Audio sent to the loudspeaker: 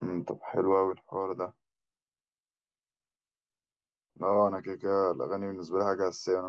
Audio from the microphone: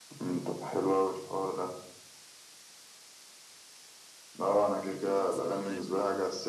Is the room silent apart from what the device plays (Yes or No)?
No